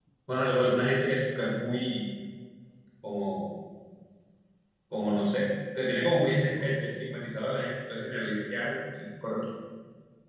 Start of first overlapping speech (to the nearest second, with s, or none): none